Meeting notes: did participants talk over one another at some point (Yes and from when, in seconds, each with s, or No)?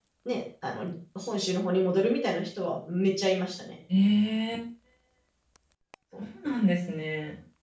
No